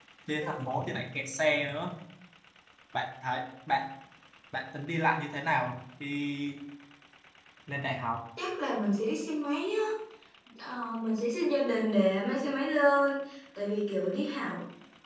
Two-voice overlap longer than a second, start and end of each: none

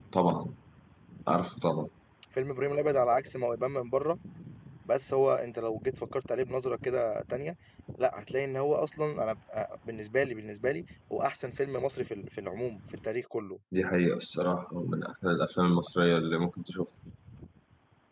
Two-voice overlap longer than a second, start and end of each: none

